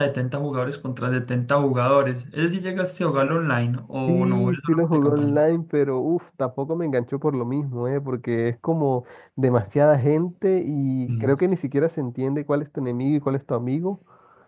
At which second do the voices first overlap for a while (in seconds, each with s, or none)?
4.1 s